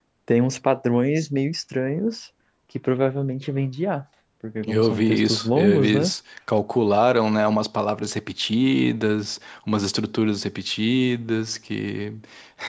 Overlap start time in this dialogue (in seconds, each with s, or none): 4.7 s